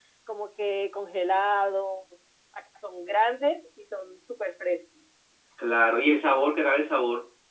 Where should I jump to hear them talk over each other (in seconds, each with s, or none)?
none